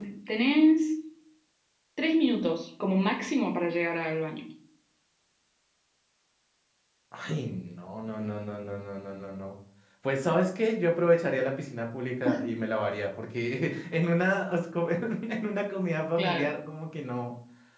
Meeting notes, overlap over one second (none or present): none